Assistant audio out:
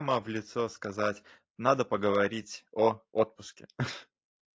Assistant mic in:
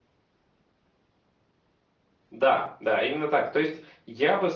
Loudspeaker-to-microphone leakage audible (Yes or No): No